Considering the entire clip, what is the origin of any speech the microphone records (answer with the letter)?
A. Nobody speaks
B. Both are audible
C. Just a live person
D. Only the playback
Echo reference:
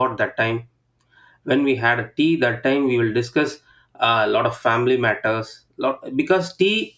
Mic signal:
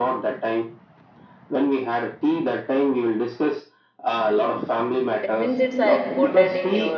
B